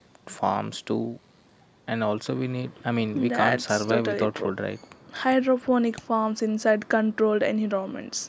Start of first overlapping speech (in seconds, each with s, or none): 3.1 s